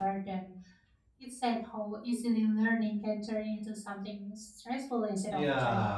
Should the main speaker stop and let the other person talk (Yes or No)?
Yes